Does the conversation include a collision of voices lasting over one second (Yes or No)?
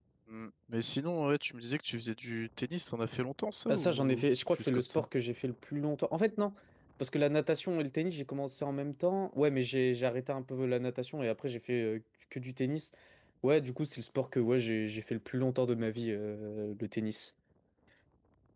Yes